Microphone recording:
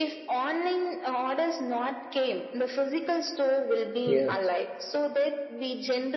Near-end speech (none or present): present